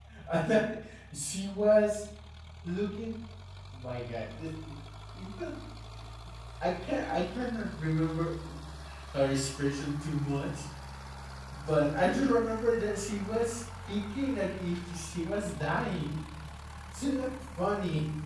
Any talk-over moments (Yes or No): No